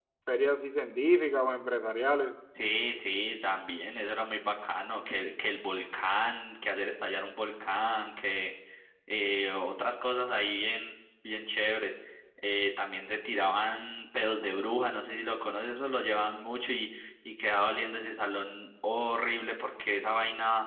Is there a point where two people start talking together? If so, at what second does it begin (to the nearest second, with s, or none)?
none